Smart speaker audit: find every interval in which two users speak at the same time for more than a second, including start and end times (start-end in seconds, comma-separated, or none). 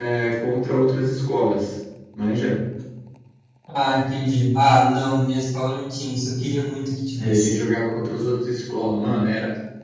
none